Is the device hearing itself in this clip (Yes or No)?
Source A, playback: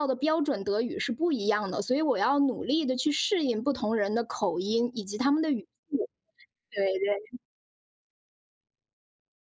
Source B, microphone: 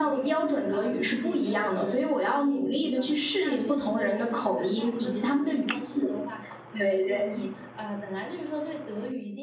Yes